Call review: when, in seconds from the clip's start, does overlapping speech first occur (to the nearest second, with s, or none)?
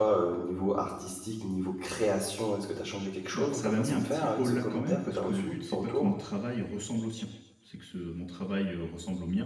3 s